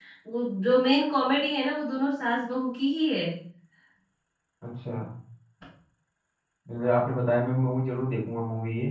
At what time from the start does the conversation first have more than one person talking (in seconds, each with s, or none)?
none